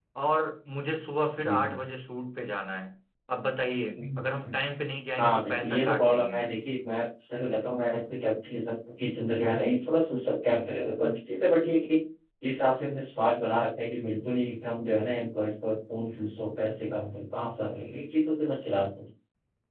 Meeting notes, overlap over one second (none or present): present